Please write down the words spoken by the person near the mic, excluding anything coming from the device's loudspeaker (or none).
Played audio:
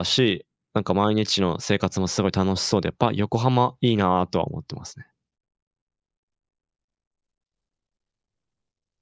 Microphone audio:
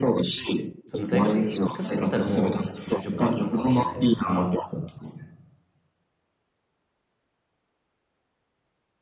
その大学い行かなかったらもう就職活動なわけじゃないですか。